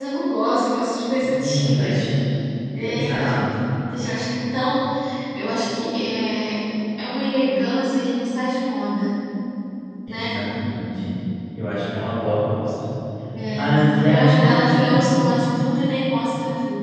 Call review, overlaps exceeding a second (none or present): present